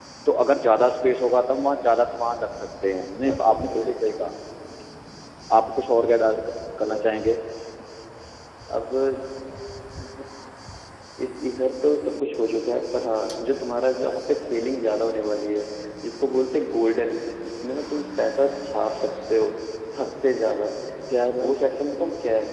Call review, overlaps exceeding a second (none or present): present